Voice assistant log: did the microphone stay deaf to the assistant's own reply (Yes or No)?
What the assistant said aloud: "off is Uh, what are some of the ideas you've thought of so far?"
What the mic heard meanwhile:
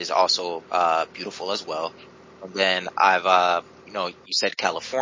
Yes